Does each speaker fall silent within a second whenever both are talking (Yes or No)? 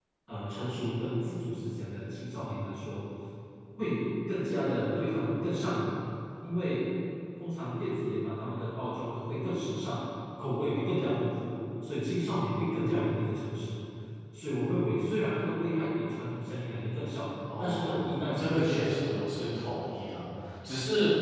No